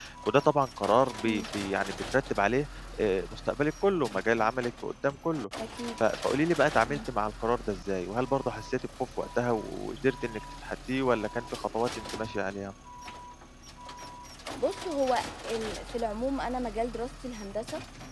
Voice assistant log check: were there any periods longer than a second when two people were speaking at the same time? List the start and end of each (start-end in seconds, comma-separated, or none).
none